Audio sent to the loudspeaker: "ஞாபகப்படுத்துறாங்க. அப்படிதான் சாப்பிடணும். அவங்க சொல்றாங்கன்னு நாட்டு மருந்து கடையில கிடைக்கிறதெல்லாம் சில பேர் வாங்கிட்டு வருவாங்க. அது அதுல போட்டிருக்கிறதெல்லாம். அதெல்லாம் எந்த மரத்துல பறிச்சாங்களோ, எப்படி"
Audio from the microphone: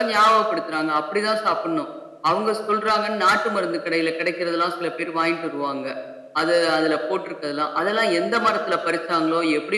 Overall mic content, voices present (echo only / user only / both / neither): echo only